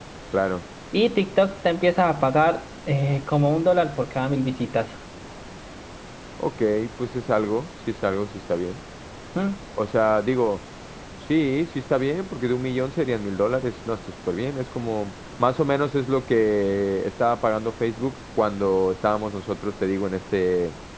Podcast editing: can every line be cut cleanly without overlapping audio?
Yes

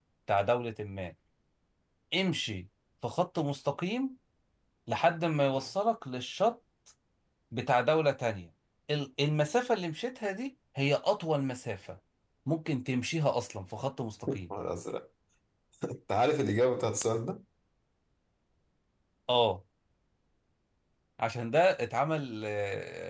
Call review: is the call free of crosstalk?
Yes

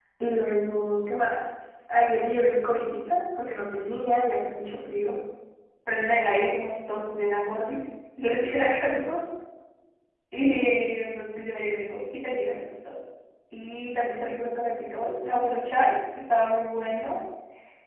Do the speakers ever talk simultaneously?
No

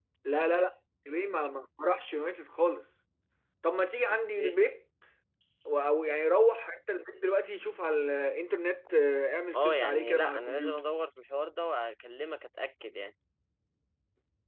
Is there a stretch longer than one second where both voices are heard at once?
Yes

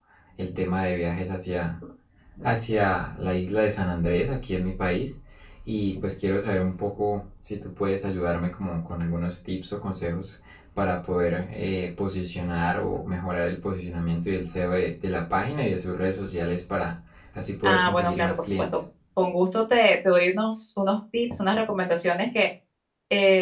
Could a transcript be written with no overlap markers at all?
No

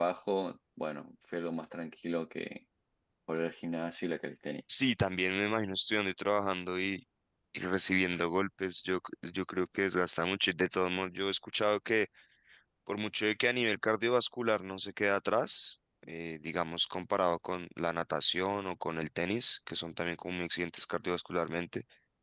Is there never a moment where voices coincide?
Yes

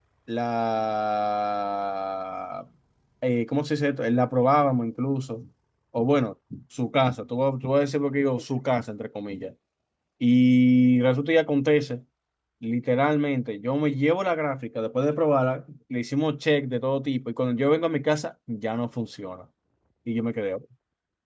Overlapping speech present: No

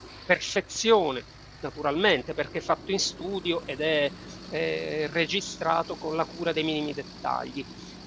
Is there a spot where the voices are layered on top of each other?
No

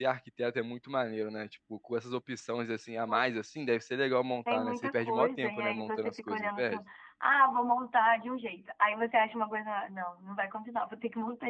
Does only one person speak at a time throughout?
No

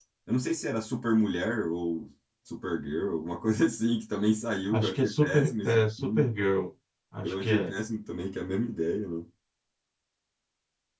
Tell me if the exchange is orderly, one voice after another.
No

